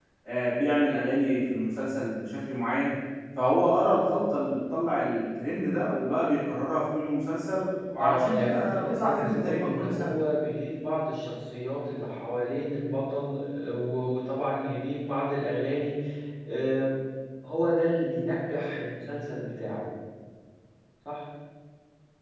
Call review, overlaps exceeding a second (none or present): present